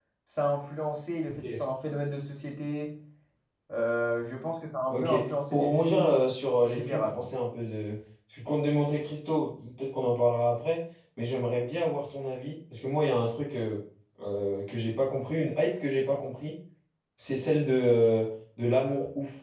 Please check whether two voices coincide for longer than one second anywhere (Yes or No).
Yes